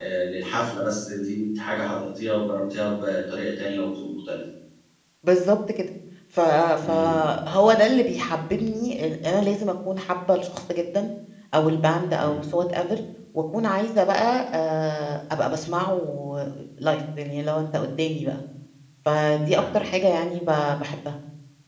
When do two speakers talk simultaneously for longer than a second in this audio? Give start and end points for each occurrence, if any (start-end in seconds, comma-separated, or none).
none